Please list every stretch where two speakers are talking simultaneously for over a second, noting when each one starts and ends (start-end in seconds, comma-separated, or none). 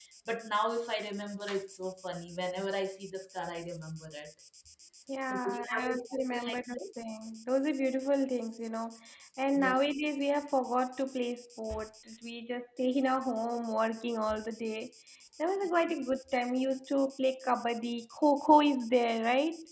5.3-6.8